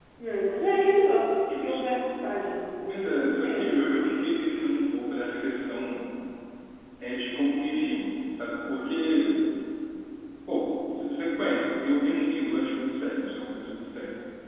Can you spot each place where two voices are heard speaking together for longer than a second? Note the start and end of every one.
2.9-4.2

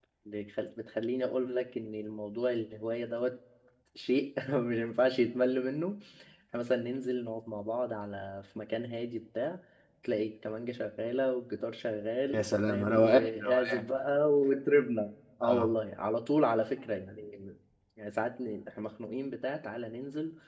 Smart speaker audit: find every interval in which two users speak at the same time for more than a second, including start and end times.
12.3-13.8

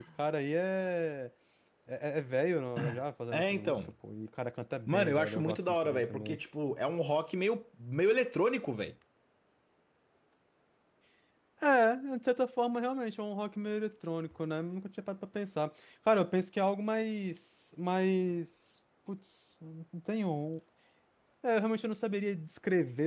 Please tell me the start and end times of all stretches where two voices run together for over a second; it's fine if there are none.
4.9-6.4

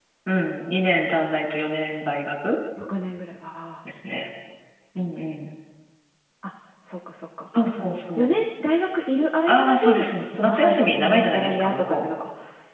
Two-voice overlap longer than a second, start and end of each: 10.3-12.1

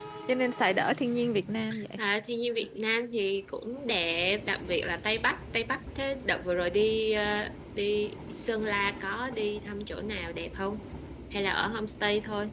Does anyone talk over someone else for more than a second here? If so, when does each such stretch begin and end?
none

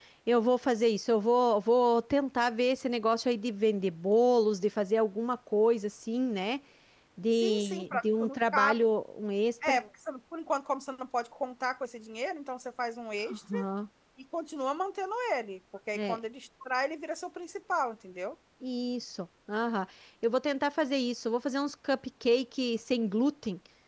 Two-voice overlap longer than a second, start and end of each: 7.3-8.8

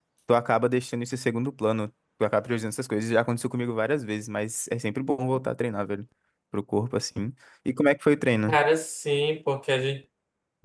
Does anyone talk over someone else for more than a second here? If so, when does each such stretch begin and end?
none

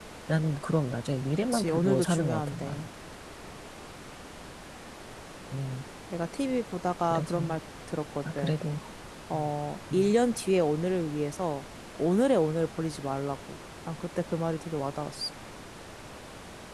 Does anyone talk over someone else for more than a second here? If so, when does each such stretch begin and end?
1.5-2.8

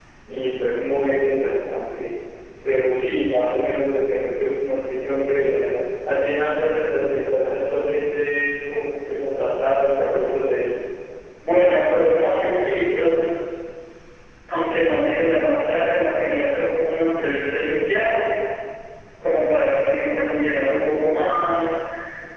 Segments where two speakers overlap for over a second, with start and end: none

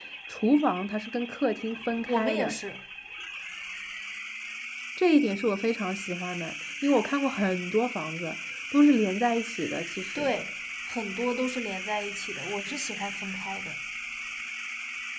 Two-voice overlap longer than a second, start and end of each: none

